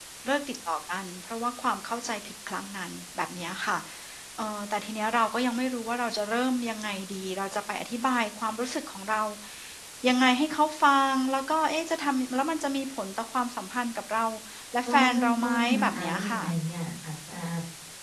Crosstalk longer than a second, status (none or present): present